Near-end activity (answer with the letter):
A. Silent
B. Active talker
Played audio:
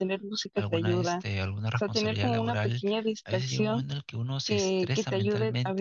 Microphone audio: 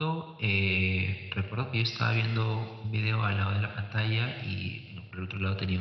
B